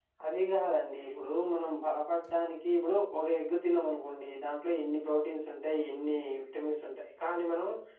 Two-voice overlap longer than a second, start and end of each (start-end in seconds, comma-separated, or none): none